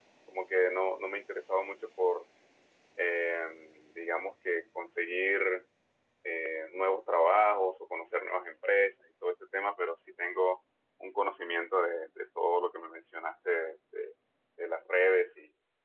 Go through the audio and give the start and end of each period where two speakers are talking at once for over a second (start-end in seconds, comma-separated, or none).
none